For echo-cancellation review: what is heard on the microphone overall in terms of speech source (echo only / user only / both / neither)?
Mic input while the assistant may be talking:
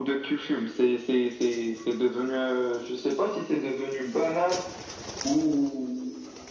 echo only